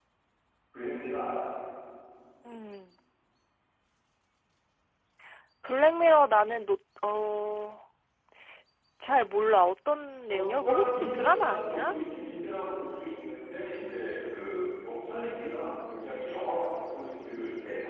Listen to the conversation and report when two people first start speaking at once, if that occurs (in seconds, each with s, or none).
10.3 s